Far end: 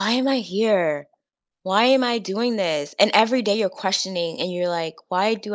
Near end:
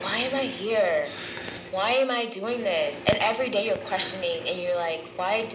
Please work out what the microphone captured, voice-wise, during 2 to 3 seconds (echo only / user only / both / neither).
echo only